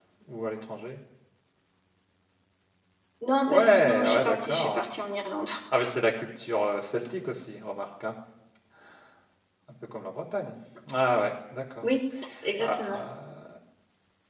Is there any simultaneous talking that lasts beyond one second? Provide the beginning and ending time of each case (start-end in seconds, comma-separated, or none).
3.5-4.8